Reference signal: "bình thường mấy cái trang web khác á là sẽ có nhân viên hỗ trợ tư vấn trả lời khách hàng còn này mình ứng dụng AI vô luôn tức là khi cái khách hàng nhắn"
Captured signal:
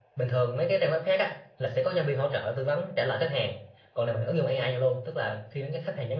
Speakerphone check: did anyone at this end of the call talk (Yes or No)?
No